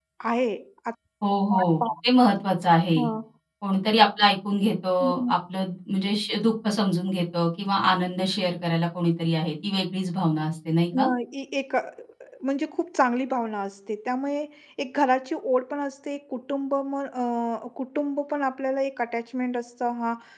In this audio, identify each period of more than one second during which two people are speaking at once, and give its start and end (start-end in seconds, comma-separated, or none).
none